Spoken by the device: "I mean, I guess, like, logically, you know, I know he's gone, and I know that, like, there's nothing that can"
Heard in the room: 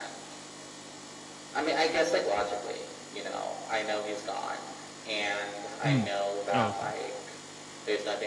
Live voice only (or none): Mm. Oh, okay,